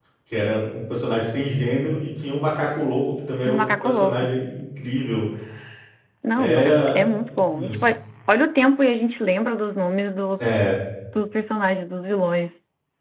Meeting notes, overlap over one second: present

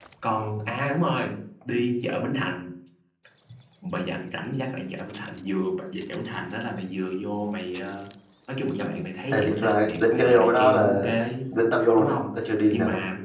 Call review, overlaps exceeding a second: present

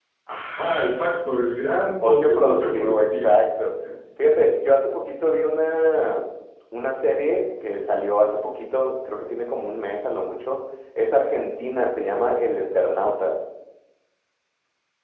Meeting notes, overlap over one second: present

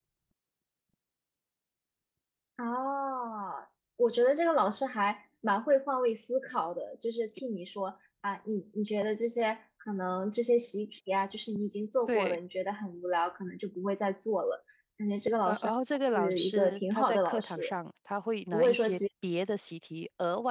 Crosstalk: present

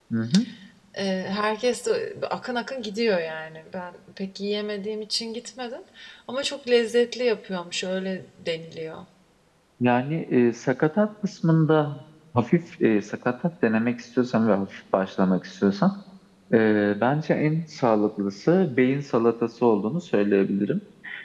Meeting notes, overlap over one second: none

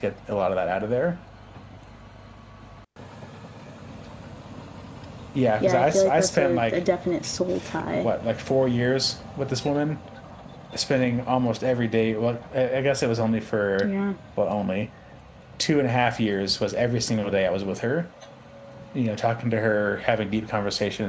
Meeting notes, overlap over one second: present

